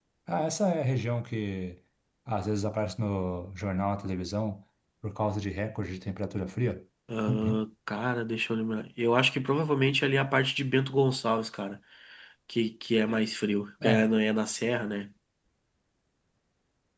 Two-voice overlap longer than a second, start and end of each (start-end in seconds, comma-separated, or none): none